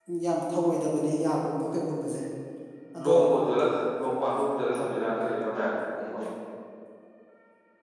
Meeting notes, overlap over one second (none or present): none